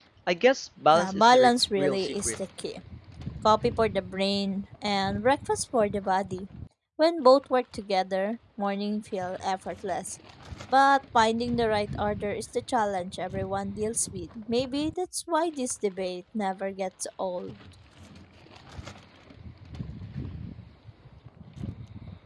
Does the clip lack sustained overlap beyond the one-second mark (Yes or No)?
No